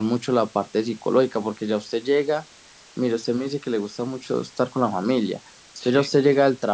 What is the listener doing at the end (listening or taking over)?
listening